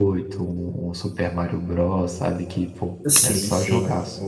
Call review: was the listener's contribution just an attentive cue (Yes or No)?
No